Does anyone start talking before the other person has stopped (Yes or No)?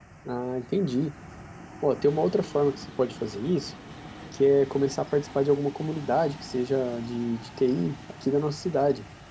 No